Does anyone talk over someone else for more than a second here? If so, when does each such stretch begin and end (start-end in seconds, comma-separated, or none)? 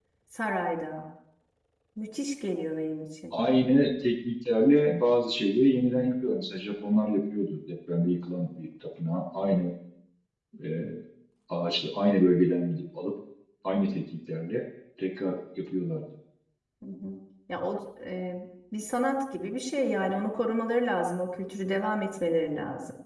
none